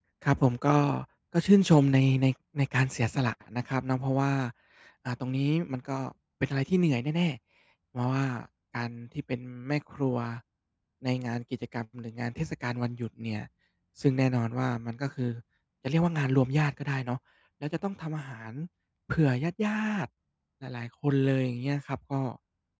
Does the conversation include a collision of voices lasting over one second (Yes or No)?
No